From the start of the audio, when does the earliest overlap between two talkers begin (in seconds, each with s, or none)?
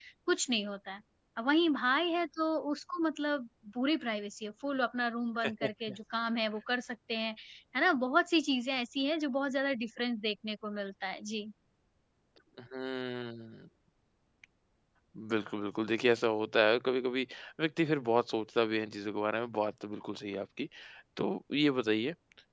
none